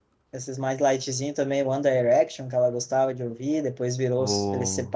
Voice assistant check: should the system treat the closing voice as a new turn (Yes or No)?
No